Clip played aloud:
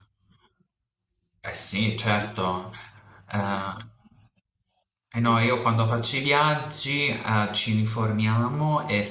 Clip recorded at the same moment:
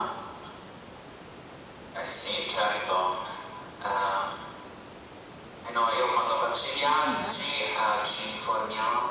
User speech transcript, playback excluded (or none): mannà.